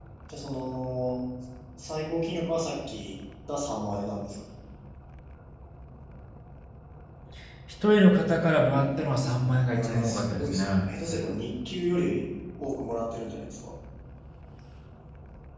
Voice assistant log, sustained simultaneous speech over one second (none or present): present